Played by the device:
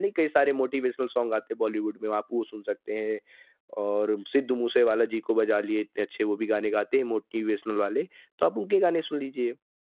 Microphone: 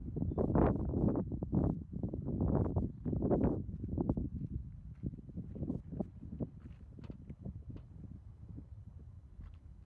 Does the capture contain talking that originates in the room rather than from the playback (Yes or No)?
No